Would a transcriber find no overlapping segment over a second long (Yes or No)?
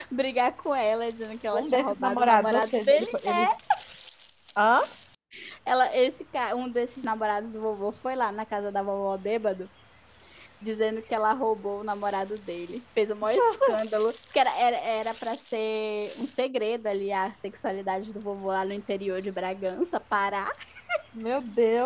No